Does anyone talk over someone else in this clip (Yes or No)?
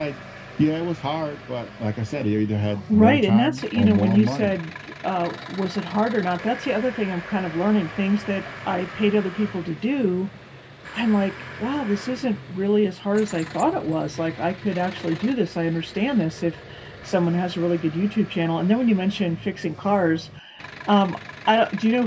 Yes